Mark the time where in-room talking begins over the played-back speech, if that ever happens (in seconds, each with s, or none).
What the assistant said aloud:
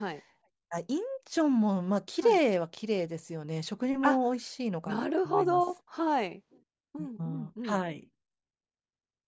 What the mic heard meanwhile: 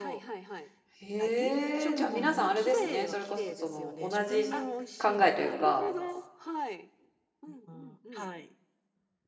1.0 s